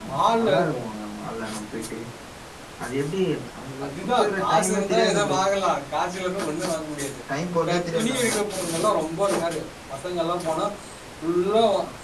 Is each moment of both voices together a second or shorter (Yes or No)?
No